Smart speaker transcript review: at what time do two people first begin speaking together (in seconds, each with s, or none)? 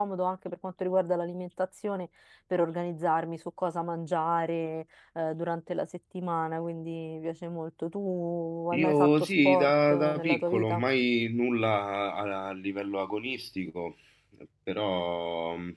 8.7 s